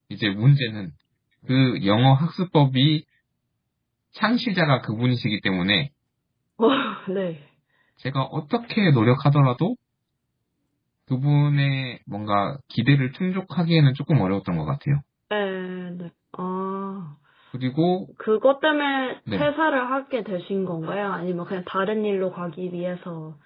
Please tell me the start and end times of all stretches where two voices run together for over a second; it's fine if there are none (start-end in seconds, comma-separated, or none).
none